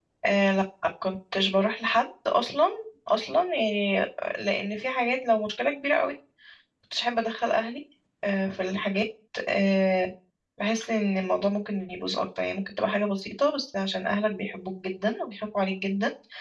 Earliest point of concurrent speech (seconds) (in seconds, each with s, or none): none